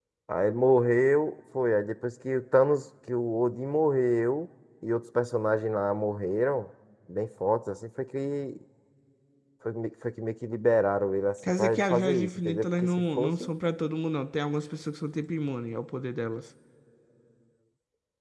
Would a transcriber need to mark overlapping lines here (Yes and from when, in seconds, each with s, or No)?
Yes, from 11.4 s